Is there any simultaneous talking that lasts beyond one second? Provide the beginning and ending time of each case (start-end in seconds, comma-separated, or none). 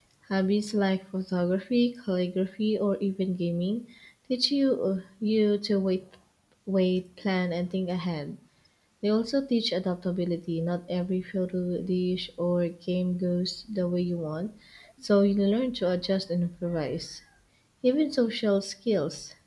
none